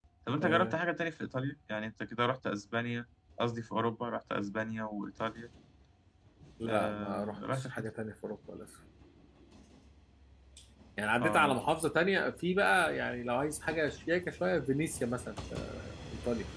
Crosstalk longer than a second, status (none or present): present